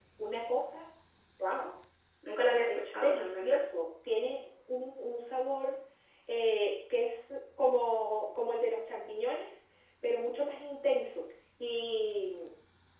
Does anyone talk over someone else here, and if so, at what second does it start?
2.4 s

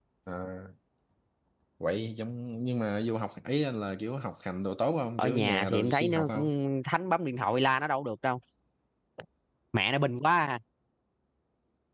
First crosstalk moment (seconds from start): 5.2 s

